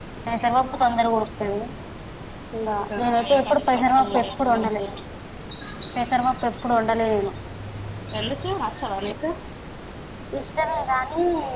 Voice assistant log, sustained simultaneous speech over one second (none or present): present